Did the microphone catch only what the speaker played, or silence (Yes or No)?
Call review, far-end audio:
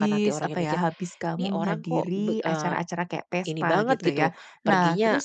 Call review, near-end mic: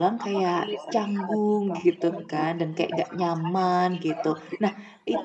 No